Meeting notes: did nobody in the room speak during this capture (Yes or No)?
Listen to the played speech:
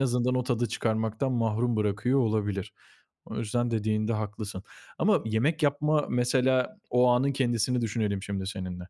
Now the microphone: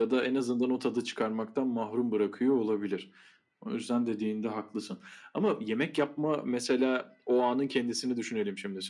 Yes